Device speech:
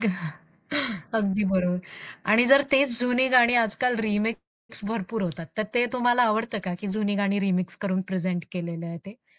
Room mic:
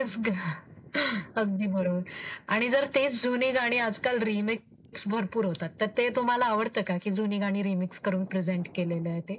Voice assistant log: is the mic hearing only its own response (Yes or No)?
Yes